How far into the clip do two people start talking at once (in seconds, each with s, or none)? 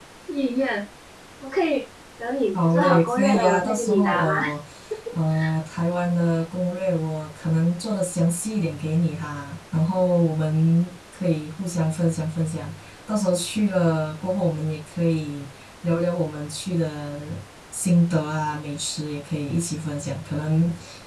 2.5 s